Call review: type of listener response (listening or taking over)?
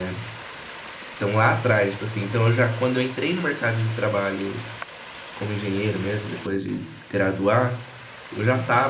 listening